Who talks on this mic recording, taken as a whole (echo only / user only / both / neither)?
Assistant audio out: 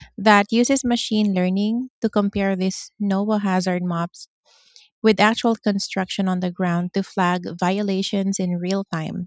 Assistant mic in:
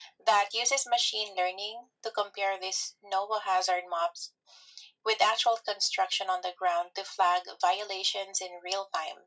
echo only